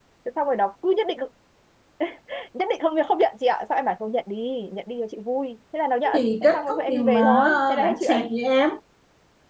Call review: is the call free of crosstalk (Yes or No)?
No